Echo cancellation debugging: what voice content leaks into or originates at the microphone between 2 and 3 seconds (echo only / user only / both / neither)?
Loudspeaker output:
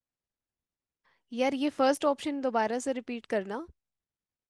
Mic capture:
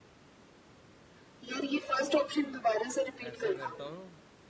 echo only